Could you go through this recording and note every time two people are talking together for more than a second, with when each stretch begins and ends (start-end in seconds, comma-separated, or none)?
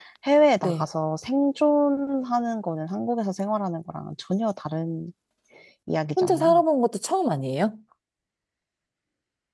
none